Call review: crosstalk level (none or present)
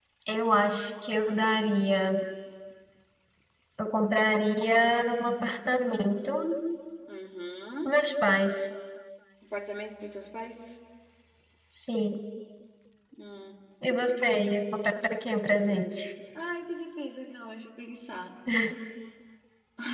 none